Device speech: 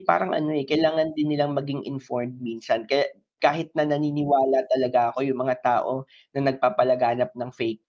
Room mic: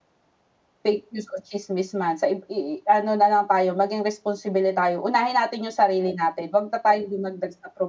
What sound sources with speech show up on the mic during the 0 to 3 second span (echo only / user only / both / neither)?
user only